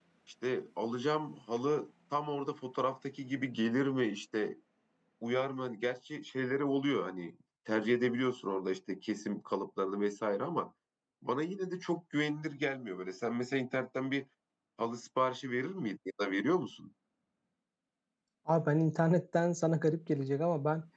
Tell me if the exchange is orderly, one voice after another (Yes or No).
Yes